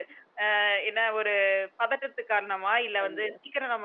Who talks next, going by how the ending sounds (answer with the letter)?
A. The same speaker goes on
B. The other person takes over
A